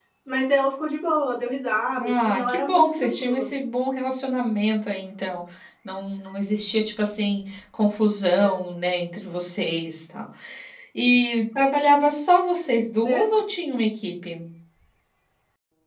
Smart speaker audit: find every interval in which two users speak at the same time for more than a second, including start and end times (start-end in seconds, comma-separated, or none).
2.0-3.5